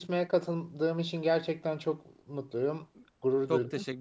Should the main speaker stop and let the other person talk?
Yes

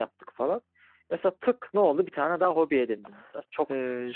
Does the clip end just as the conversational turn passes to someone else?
No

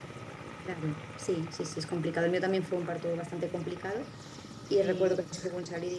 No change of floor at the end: Yes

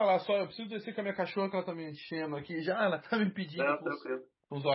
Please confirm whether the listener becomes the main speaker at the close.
No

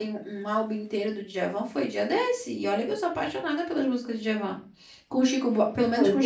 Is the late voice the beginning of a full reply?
No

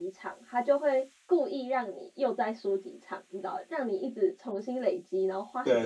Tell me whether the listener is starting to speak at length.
Yes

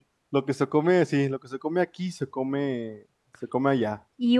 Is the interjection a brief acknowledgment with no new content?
No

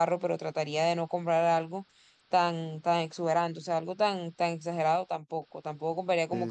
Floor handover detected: No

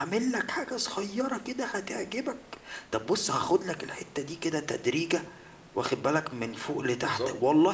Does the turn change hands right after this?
No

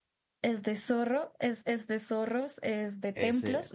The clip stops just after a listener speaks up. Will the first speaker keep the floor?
Yes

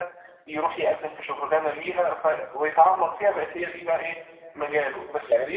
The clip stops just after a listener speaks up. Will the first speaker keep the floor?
Yes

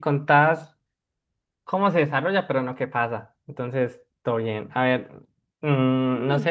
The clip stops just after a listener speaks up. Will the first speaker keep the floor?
Yes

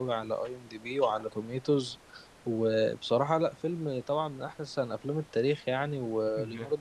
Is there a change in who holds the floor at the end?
No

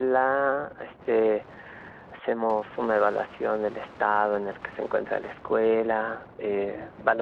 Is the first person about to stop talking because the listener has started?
No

